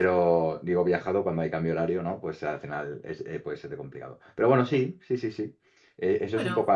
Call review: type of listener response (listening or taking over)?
listening